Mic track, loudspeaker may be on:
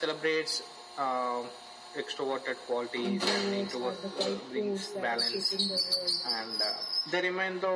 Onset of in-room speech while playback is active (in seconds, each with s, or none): 3.0 s